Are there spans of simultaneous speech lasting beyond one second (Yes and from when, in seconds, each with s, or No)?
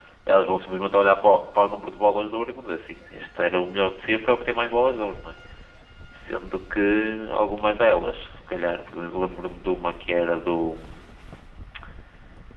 No